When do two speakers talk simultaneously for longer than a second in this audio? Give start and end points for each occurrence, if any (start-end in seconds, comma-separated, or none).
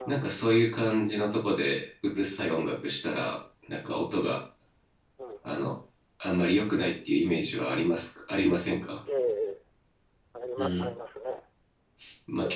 none